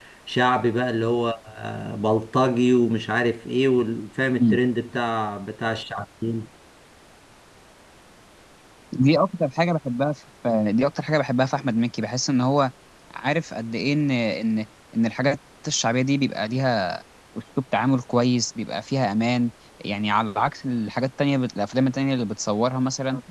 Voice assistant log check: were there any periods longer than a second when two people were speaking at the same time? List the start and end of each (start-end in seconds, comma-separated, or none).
none